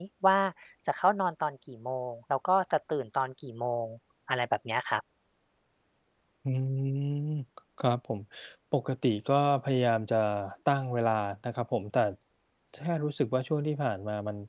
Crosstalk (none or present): none